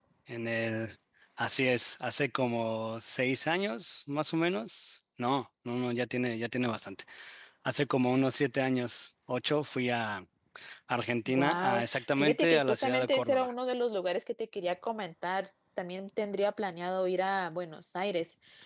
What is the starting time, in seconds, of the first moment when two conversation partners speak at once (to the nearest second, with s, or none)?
11 s